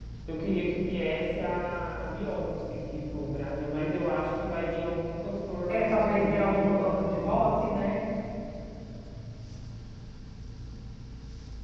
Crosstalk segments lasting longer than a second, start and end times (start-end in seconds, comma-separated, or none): 5.7-7.8